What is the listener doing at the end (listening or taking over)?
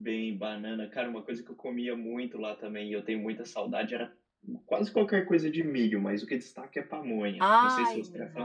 taking over